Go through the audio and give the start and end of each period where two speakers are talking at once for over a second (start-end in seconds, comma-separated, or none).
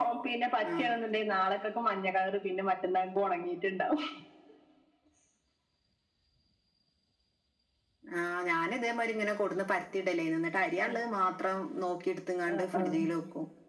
none